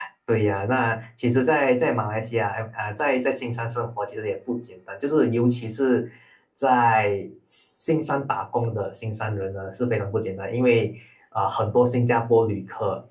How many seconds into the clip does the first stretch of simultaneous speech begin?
none

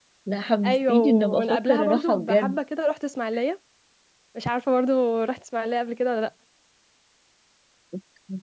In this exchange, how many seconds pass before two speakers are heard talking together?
0.6 s

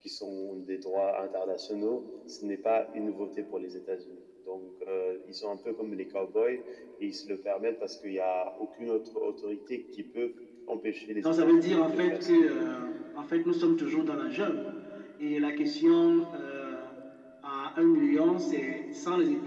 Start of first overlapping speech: 11.2 s

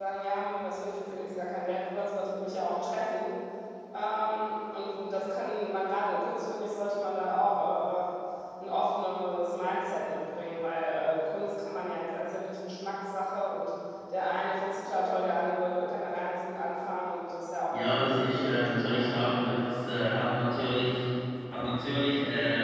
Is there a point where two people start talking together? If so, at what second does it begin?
17.7 s

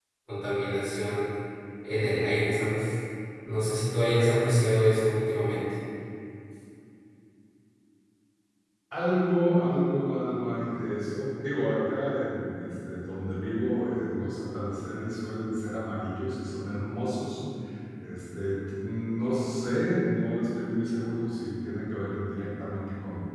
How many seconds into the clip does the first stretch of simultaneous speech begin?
none

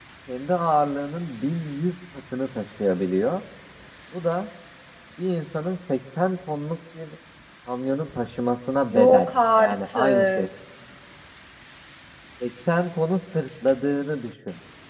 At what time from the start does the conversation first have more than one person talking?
8.9 s

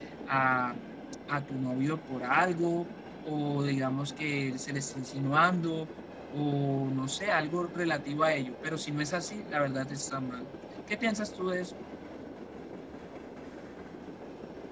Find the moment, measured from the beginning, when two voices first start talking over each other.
none

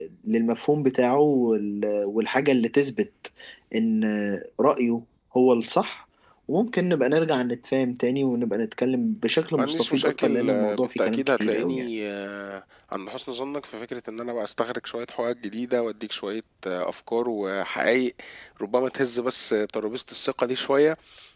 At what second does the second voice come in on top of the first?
9.6 s

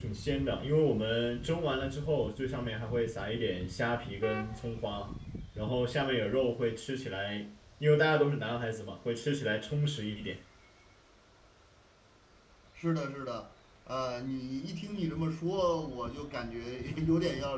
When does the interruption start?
none

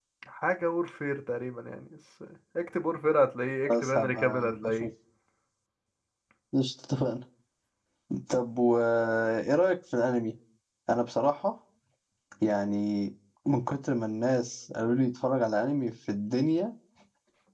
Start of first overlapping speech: 3.6 s

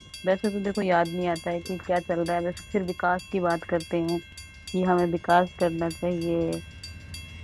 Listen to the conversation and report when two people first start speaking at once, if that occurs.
none

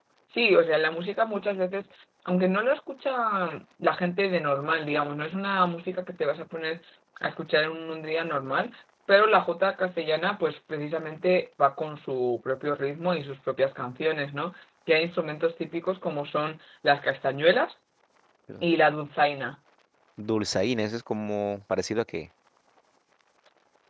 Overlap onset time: none

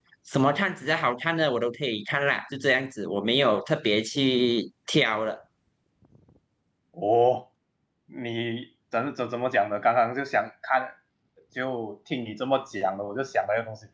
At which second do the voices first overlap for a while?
none

